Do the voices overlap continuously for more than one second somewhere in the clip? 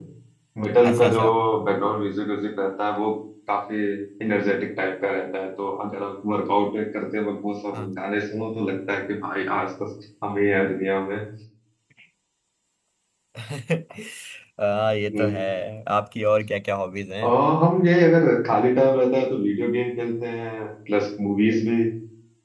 No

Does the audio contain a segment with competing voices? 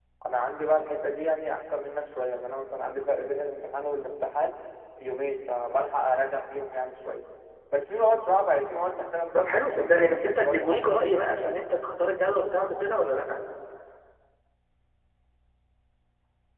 Yes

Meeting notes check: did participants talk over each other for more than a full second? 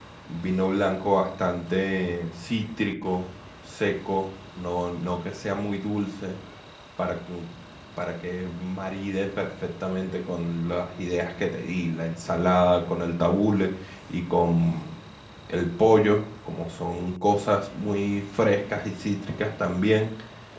No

